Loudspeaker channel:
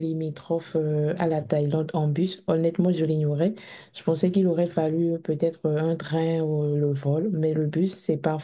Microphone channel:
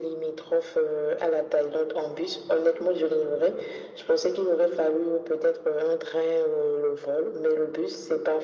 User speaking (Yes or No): No